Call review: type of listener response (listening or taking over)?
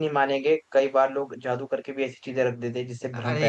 taking over